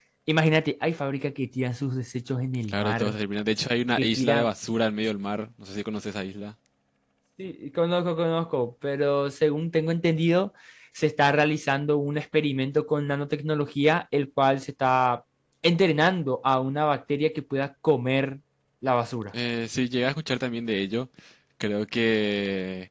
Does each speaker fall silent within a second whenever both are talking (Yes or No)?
Yes